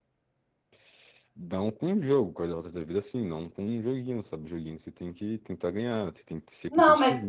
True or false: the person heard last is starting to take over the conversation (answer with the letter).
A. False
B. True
B